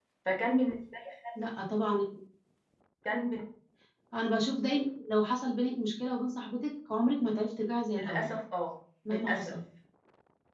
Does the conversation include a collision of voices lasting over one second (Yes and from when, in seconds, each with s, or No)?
No